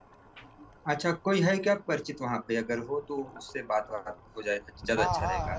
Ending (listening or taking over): taking over